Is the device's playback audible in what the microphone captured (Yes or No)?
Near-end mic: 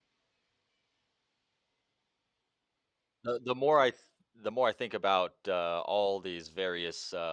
No